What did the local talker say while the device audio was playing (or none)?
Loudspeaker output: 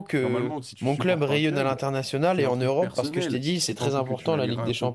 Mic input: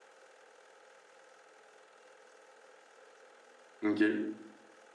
Ok.